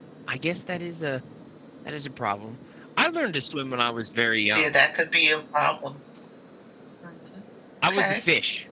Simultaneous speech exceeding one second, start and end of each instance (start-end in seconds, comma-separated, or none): none